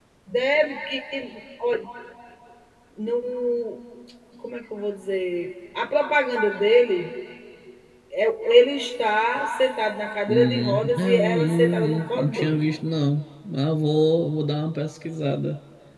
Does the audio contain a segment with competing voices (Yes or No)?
Yes